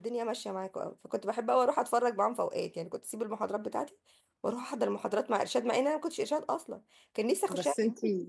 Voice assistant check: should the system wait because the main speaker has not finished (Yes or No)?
No